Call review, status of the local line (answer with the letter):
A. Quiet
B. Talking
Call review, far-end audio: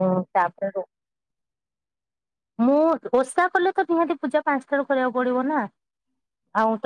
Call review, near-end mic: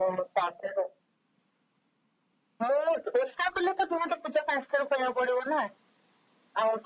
A